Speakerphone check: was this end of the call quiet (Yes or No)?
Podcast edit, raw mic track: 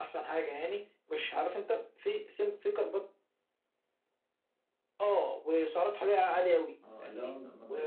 No